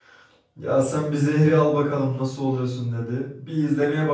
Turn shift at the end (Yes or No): No